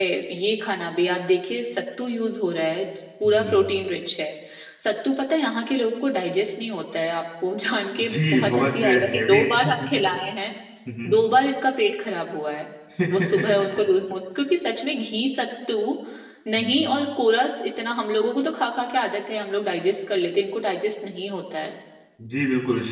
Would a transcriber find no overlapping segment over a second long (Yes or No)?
No